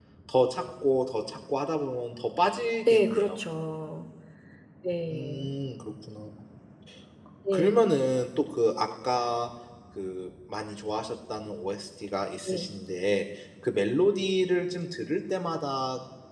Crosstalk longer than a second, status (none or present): none